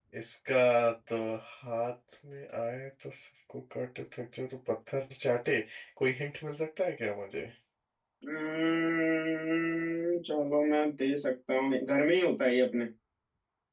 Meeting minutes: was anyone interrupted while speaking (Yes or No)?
No